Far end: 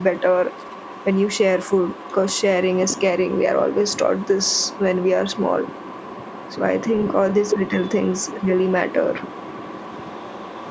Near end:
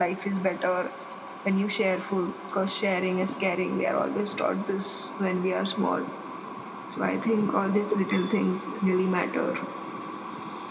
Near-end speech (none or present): none